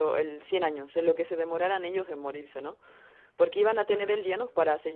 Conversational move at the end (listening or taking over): listening